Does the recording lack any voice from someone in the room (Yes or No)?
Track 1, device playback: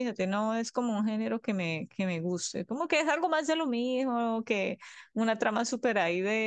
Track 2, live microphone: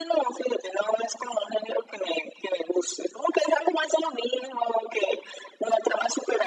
Yes